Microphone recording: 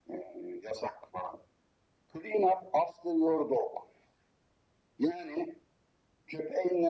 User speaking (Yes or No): No